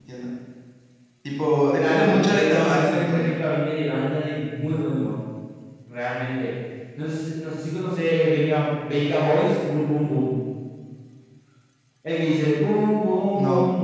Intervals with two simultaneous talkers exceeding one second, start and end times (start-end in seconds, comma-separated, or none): 1.9-3.3